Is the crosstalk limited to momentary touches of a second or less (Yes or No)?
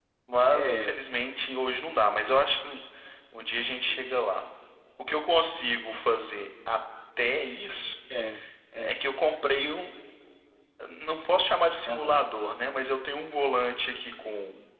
Yes